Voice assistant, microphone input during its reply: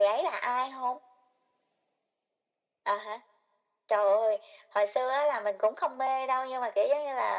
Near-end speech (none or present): none